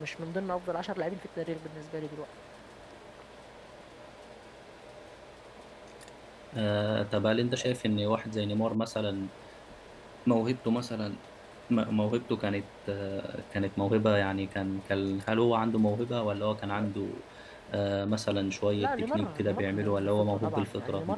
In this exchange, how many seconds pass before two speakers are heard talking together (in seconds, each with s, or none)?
18.8 s